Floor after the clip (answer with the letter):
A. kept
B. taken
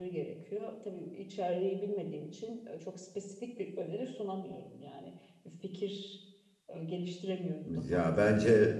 B